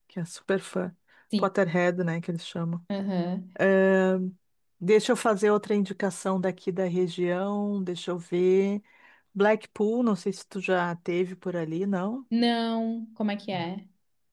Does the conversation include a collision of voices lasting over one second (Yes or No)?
No